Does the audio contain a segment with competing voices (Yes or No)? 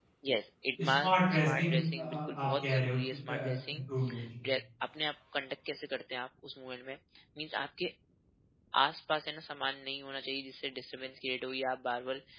Yes